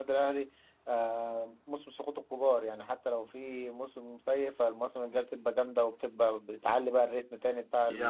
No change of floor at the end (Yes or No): No